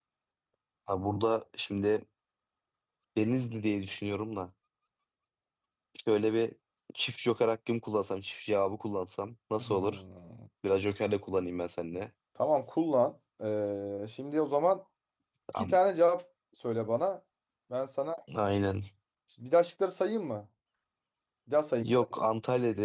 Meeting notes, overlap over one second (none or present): none